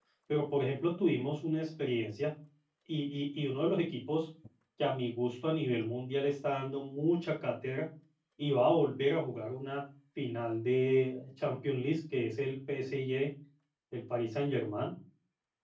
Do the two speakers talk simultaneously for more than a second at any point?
No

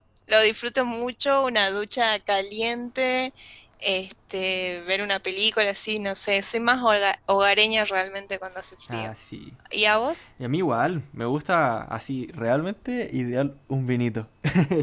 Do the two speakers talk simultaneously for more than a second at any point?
No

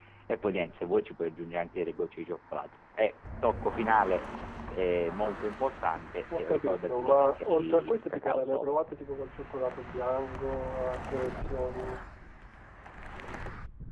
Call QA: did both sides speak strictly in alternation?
No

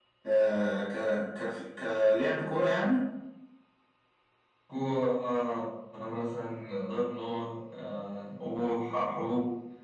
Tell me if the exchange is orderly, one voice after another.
Yes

